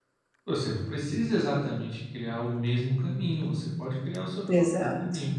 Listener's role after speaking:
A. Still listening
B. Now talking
A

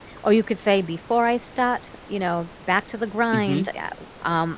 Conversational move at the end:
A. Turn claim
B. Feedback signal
B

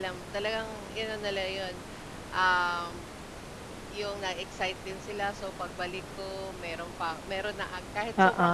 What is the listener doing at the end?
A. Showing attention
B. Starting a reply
A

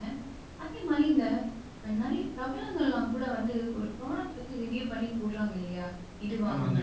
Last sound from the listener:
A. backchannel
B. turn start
A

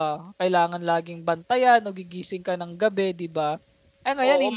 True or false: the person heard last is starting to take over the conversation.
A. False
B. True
B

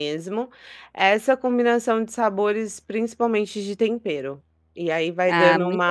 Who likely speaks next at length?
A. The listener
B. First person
A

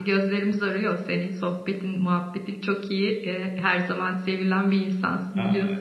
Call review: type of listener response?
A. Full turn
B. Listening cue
A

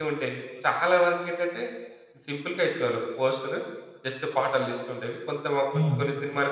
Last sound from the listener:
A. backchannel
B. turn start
A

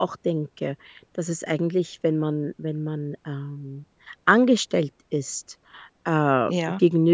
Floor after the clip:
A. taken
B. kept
B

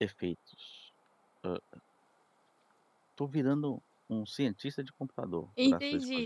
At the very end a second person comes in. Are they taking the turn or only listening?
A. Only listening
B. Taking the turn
B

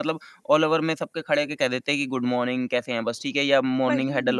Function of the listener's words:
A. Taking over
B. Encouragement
B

